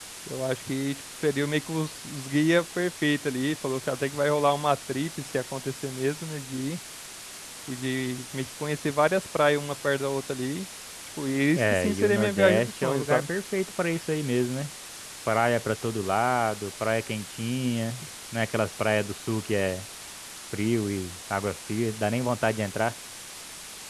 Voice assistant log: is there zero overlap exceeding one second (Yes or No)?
No